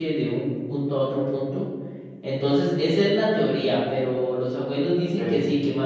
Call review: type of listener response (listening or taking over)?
listening